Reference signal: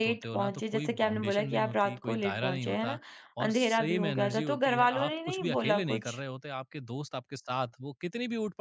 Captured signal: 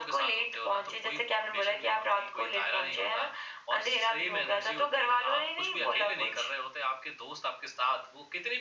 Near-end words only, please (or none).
none